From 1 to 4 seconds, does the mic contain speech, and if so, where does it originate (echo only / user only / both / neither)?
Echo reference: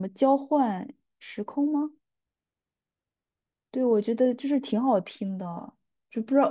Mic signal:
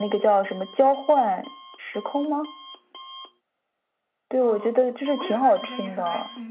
echo only